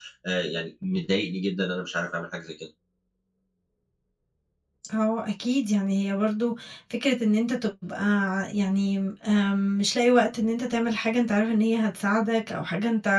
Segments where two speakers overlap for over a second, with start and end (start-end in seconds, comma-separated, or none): none